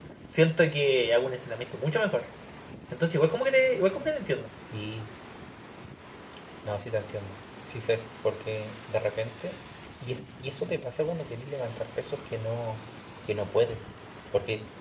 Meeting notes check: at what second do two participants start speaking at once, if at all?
none

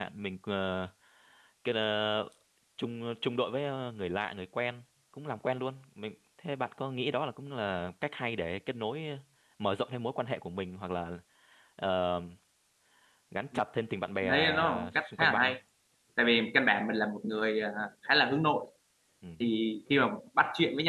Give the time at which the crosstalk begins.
14 s

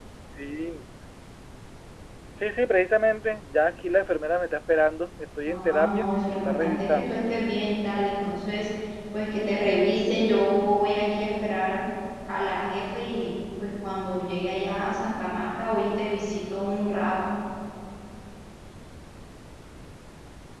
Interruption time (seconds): 5 s

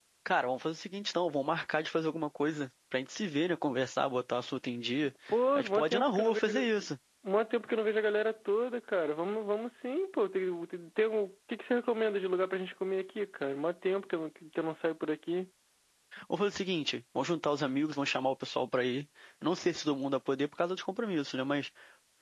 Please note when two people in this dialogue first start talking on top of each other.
6 s

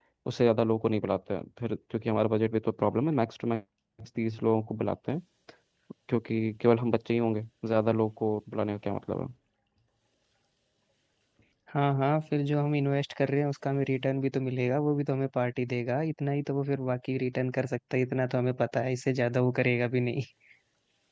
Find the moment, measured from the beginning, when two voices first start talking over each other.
none

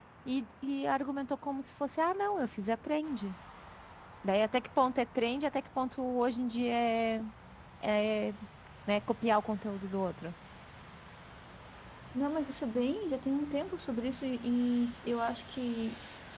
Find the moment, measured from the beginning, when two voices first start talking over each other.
none

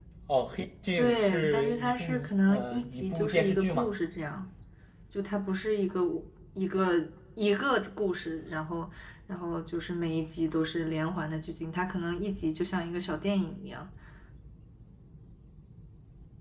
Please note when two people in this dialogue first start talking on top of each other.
1 s

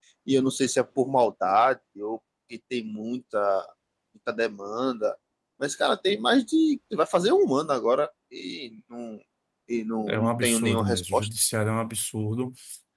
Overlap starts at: 10 s

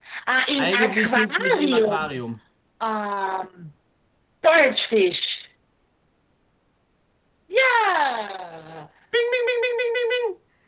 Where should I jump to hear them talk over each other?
1 s

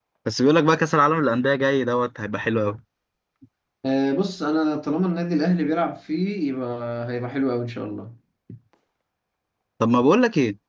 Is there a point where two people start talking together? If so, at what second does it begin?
none

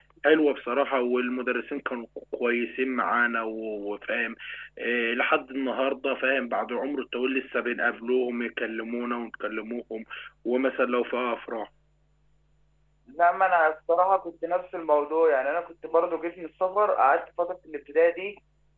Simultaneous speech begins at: none

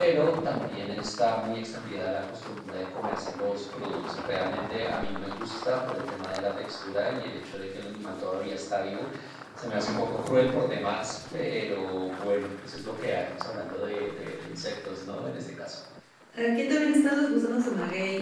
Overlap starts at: none

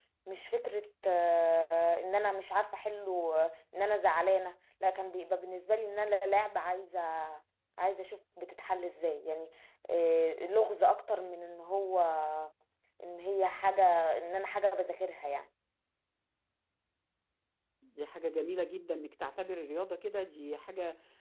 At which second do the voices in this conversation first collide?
none

